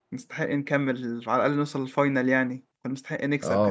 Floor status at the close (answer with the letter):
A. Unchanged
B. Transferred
B